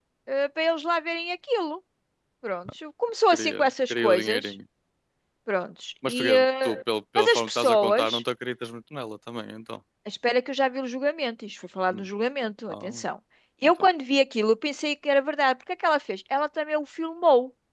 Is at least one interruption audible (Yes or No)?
Yes